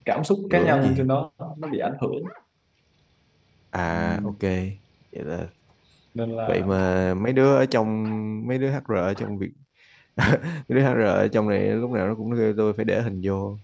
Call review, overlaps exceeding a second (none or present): none